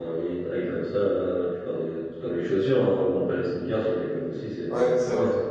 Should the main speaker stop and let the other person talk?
Yes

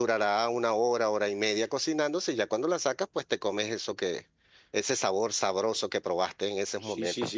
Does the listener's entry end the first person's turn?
Yes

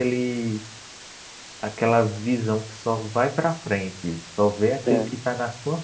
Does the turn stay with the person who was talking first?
Yes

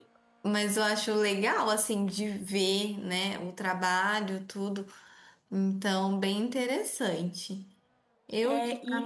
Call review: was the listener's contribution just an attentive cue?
No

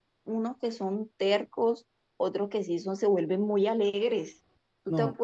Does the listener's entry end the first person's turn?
No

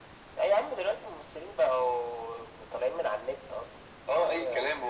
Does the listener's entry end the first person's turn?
Yes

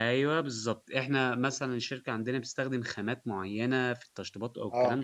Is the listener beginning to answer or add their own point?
No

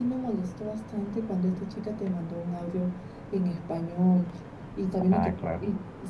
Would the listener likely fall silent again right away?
Yes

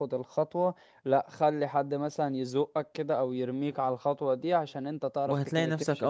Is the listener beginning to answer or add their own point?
Yes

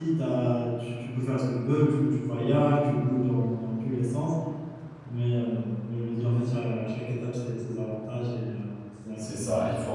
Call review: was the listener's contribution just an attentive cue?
No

